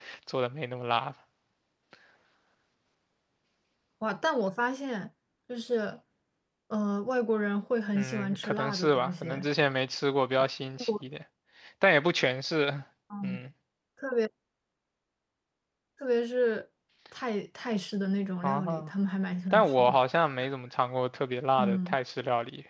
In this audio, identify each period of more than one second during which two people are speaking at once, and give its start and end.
8.0-9.3

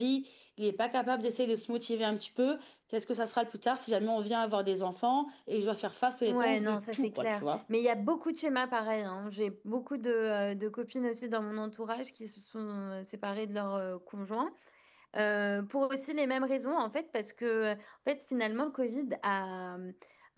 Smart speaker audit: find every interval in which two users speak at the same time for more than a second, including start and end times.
6.3-7.5

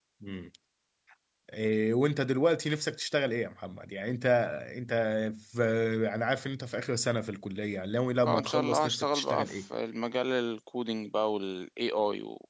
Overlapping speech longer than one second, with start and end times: 8.2-9.6

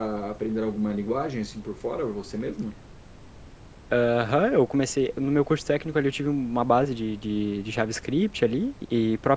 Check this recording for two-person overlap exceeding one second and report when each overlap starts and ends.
none

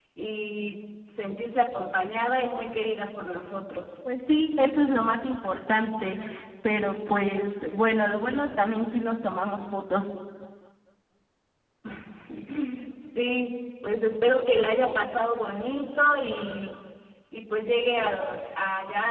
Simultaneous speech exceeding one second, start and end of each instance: none

